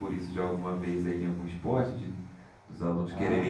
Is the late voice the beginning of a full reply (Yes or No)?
Yes